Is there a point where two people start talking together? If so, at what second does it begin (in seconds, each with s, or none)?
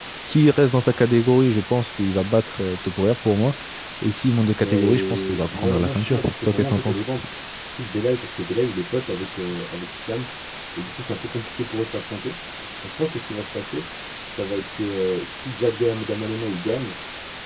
4.6 s